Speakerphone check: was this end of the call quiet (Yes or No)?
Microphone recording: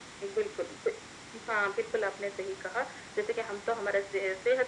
Yes